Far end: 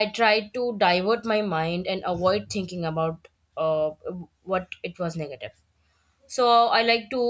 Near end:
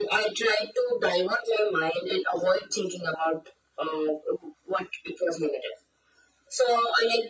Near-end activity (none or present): none